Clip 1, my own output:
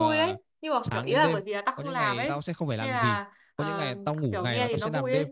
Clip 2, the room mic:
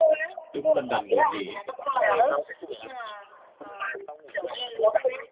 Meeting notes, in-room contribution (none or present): present